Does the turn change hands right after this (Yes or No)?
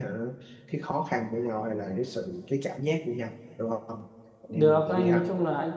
Yes